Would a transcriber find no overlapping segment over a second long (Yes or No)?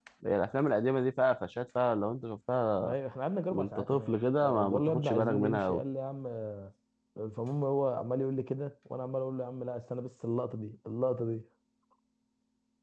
No